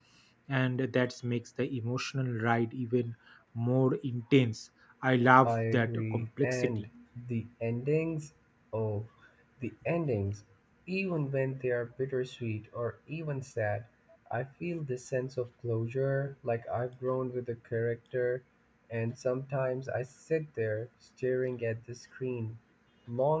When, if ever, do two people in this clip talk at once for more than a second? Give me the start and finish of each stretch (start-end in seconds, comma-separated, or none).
5.5-6.9